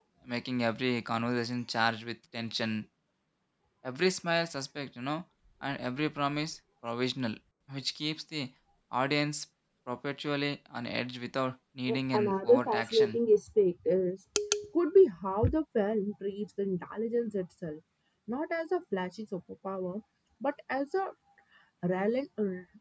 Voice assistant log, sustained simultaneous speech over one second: present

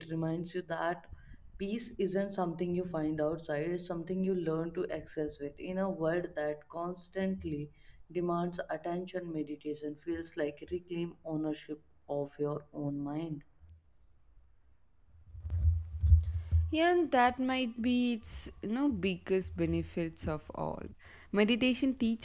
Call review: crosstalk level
none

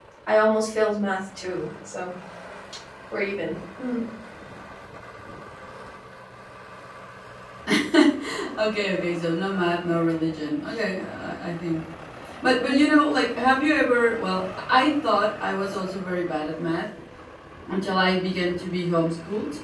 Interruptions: none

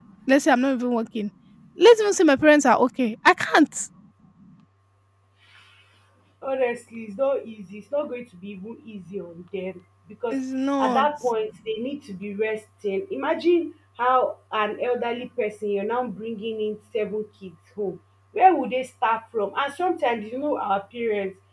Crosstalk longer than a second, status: none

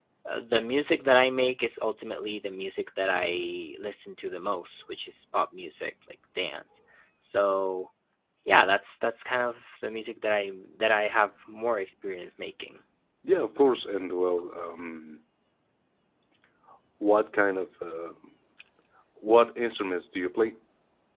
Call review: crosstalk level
none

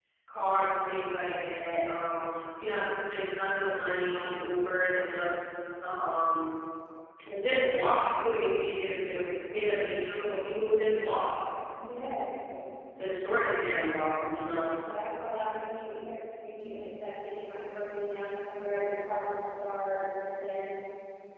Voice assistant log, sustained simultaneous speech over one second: none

